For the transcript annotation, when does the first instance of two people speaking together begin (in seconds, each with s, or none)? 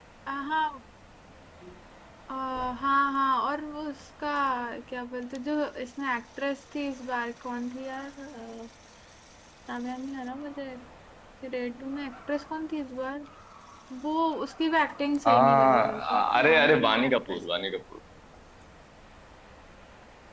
15.2 s